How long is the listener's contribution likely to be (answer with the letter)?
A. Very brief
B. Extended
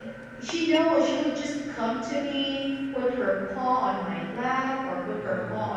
A